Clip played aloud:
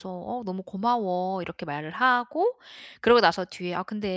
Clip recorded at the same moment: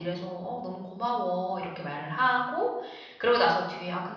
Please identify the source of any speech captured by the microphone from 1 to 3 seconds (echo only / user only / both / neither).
echo only